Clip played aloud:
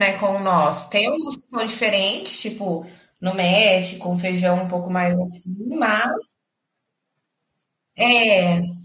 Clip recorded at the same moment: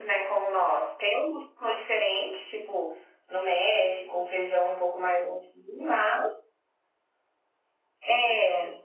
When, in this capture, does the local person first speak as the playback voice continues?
none

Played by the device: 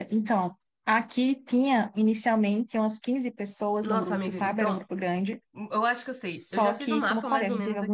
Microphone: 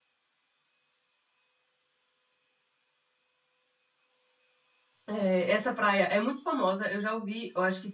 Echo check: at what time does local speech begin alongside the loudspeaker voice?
5.1 s

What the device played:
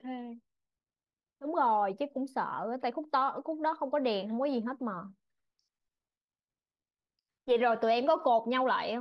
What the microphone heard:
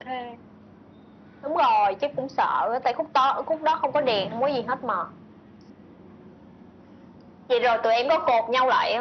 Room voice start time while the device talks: none

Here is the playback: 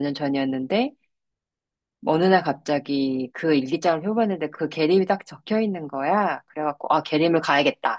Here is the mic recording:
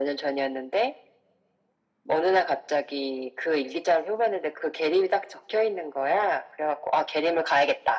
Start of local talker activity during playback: none

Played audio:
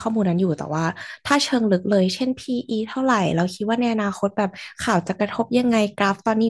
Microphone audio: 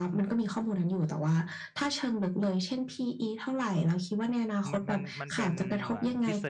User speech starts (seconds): 4.7 s

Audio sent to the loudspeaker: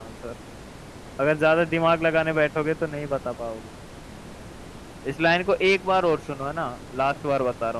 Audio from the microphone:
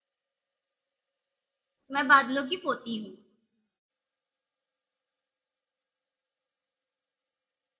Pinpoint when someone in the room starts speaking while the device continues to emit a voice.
1.9 s

